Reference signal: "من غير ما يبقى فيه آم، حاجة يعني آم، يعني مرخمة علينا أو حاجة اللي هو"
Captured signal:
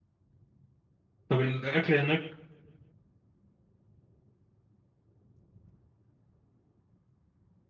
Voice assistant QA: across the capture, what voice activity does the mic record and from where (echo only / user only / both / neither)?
user only